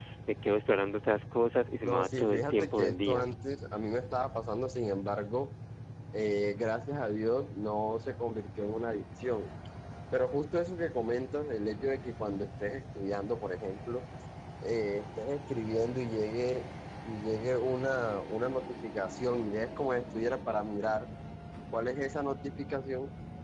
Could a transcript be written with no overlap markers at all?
No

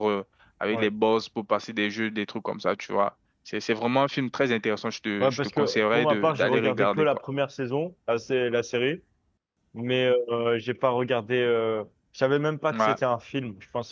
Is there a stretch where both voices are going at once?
Yes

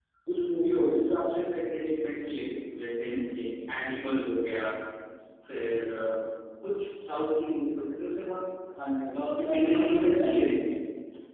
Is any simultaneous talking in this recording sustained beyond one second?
Yes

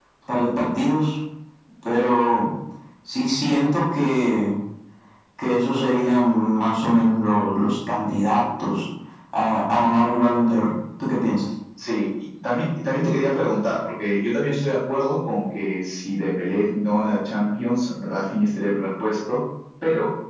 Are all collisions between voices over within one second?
Yes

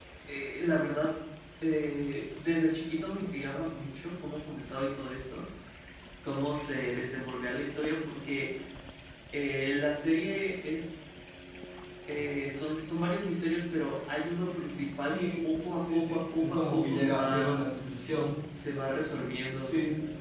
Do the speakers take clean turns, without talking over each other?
No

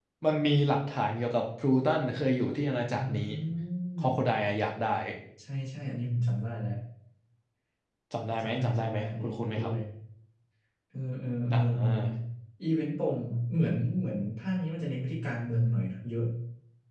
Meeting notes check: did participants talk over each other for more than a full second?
Yes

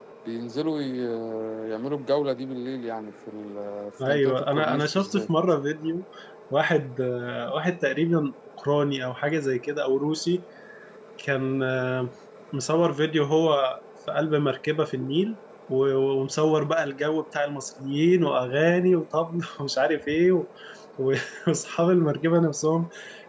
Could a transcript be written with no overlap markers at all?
No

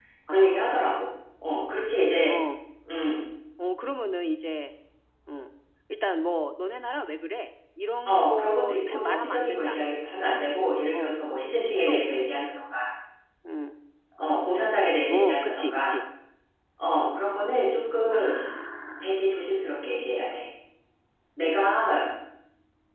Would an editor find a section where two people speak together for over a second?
Yes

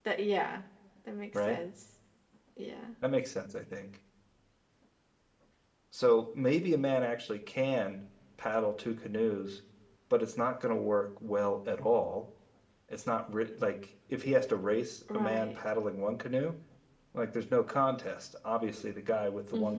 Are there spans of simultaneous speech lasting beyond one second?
No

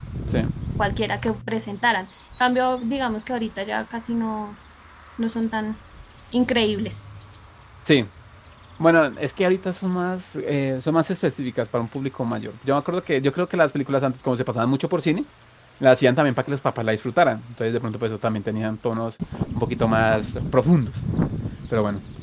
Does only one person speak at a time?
Yes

